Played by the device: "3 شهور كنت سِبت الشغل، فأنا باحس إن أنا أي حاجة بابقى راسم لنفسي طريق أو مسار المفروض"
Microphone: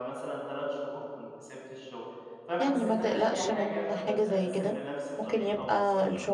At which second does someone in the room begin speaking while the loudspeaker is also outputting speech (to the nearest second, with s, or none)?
3 s